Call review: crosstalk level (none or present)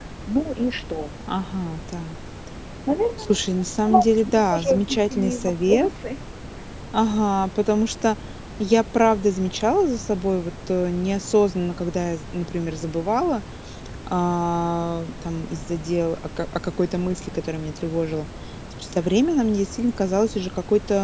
present